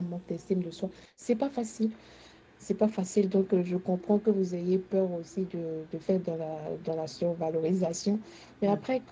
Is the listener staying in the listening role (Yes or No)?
Yes